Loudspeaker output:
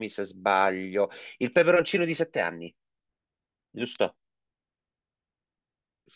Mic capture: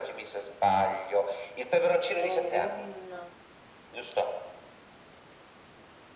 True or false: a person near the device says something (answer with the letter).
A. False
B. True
B